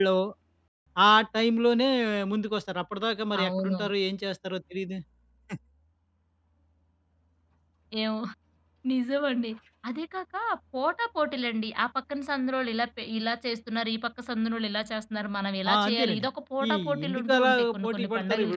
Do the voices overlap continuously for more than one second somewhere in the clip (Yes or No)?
Yes